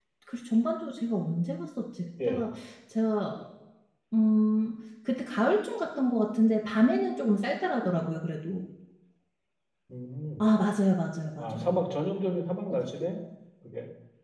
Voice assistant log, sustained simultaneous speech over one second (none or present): none